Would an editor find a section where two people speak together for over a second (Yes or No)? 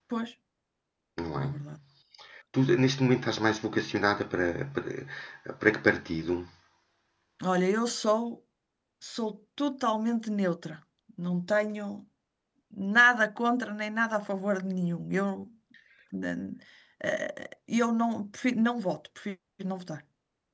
No